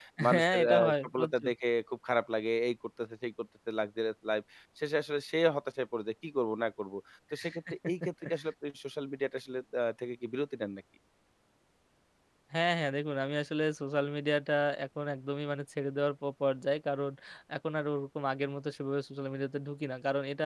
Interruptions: present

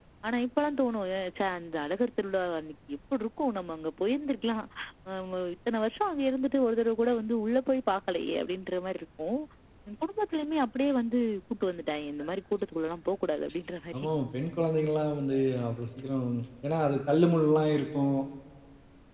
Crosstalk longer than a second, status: none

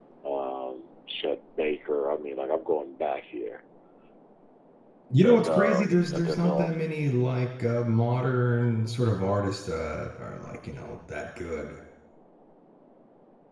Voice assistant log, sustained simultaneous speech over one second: present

